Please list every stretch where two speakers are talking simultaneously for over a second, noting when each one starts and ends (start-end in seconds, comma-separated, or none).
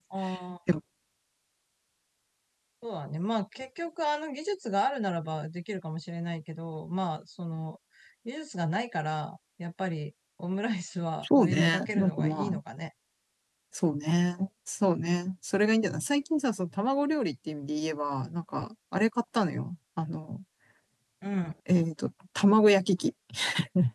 11.2-12.6